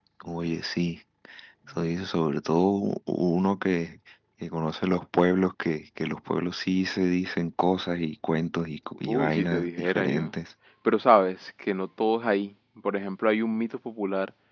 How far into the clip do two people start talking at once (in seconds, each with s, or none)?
9.0 s